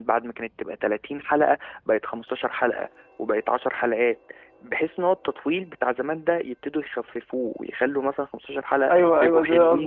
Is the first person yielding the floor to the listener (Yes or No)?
Yes